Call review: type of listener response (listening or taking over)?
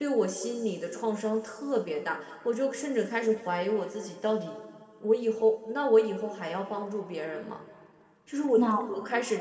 listening